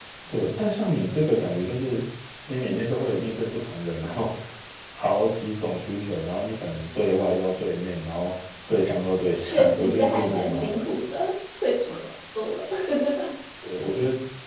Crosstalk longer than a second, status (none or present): present